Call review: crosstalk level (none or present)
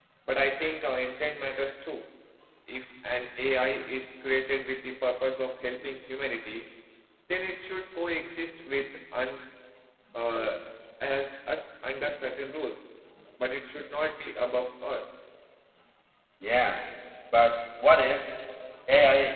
none